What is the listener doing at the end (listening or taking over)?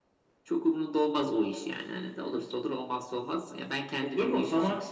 taking over